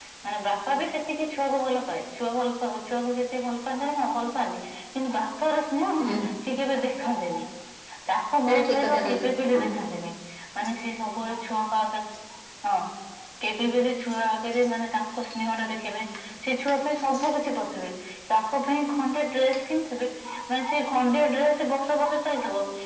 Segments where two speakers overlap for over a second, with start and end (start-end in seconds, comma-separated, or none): 8.5-9.7